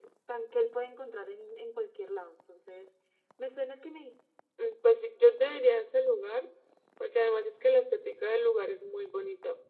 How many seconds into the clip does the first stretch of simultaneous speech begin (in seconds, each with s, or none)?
none